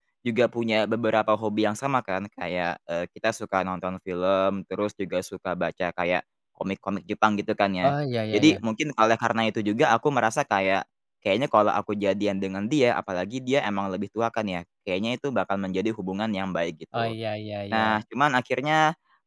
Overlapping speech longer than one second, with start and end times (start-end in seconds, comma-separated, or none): none